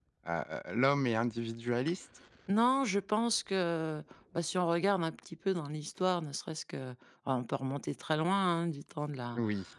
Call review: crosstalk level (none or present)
none